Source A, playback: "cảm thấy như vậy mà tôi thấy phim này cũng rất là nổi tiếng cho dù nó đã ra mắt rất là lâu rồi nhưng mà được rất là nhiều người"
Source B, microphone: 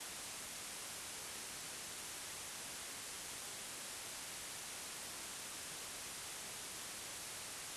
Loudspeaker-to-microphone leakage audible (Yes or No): No